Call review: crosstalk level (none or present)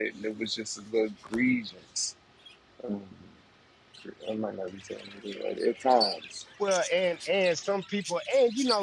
none